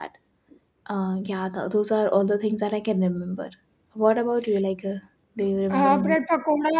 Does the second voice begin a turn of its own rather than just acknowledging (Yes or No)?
Yes